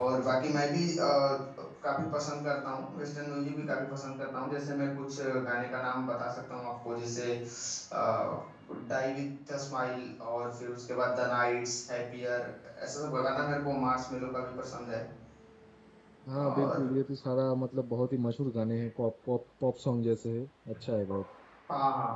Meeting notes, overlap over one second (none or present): none